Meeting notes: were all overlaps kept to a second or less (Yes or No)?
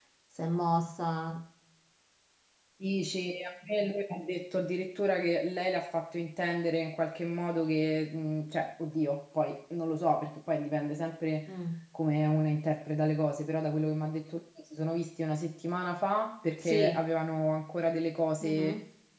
Yes